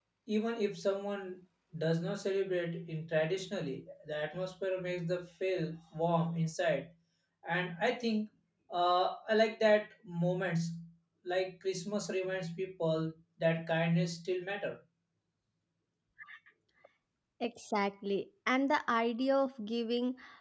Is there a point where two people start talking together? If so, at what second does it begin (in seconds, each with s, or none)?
none